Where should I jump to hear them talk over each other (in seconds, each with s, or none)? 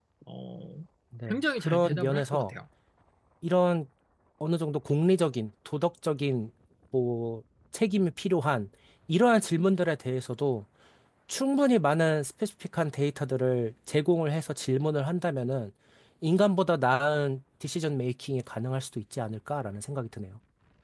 1.3 s